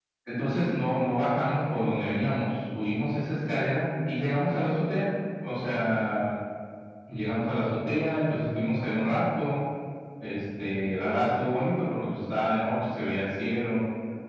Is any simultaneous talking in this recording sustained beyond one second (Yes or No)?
No